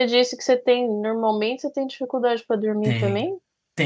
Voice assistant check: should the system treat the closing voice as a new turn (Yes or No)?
Yes